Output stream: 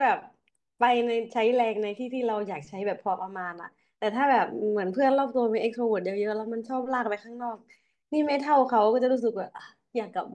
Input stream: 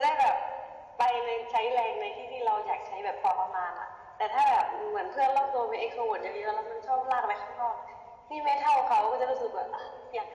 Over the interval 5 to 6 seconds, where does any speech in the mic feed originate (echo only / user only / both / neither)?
echo only